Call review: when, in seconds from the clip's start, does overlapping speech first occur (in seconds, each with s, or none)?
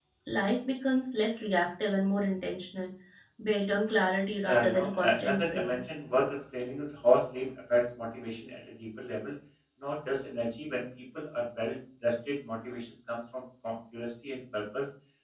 4.4 s